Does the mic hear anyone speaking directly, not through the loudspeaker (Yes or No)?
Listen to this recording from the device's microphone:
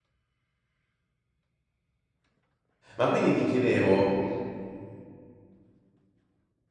Yes